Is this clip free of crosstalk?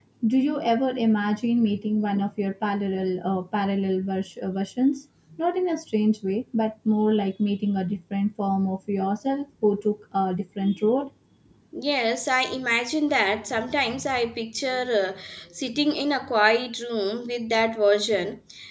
Yes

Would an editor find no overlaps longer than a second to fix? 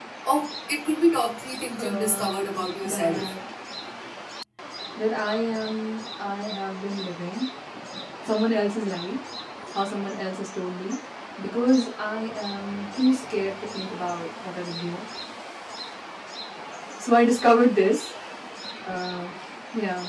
No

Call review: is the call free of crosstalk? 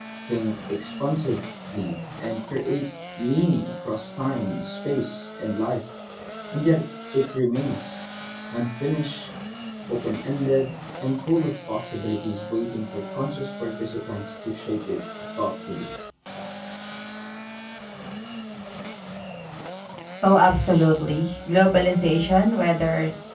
Yes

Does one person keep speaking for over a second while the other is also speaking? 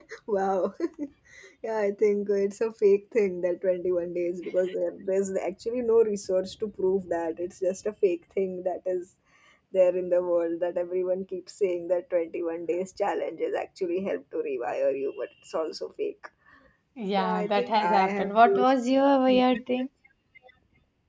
Yes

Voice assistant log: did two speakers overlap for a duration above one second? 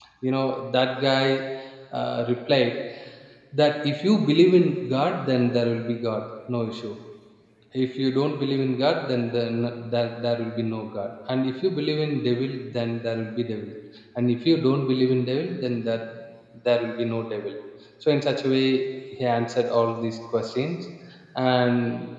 No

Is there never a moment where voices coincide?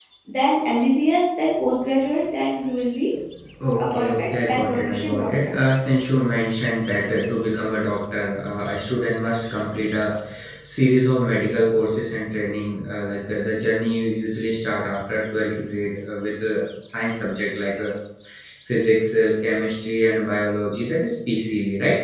No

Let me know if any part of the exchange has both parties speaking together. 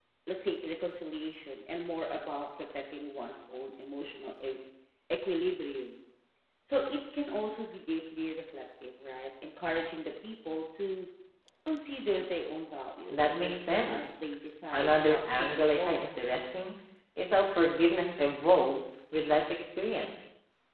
Yes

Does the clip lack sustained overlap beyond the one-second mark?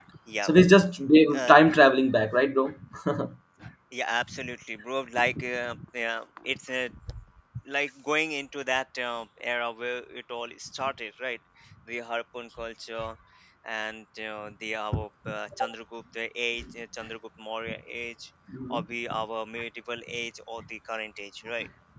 Yes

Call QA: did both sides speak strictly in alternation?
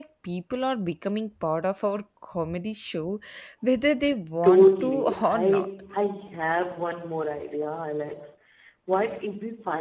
No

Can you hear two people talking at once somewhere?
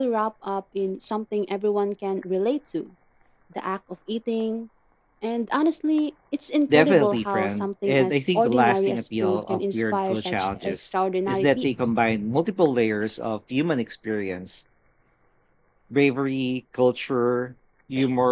Yes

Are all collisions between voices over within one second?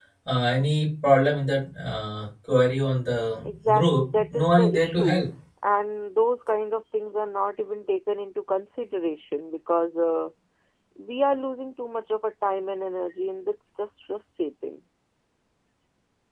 No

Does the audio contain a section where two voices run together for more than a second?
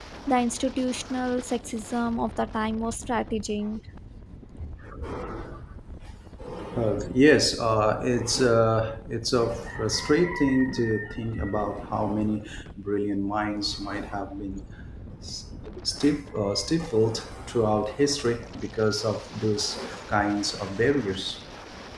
No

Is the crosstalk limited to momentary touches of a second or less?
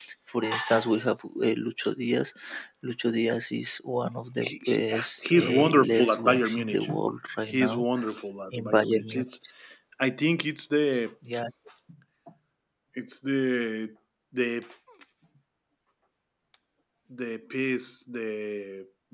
No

